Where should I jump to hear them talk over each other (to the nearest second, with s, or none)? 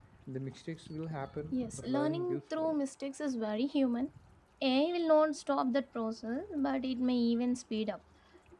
2 s